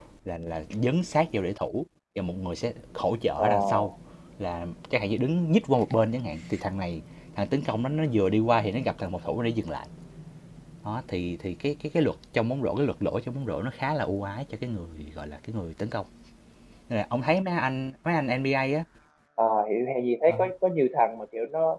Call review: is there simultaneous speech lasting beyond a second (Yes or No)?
No